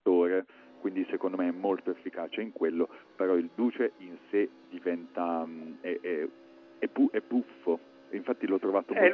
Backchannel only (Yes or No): No